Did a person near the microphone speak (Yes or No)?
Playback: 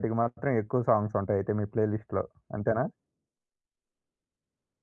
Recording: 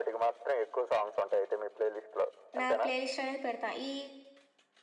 Yes